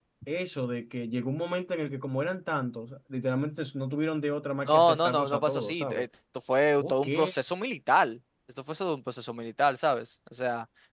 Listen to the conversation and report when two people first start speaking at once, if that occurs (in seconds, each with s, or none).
4.7 s